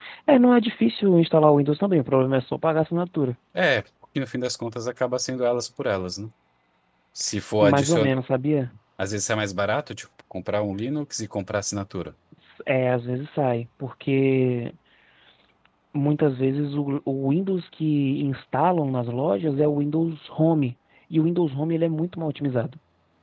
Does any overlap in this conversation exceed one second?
No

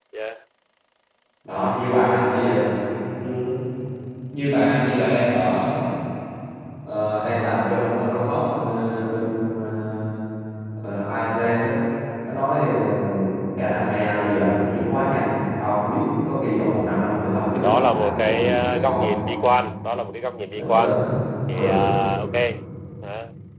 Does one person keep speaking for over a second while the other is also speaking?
Yes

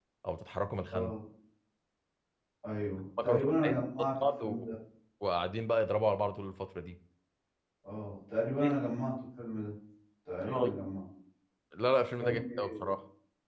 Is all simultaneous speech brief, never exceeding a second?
No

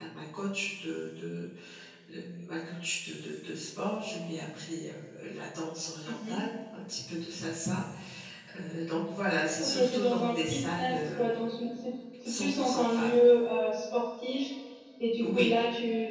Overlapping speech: Yes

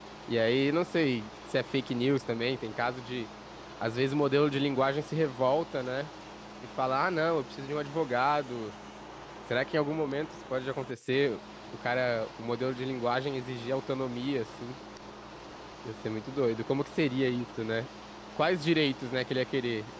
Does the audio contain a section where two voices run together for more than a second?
No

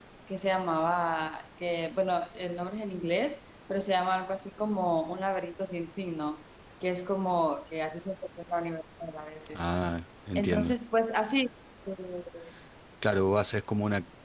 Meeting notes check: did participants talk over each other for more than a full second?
No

